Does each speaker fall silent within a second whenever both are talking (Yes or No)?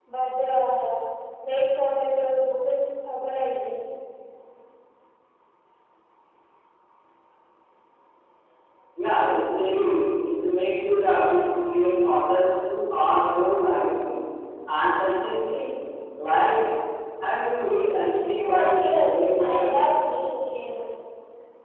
No